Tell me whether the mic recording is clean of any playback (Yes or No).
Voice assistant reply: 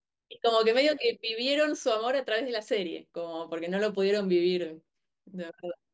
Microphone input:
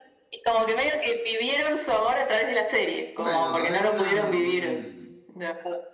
No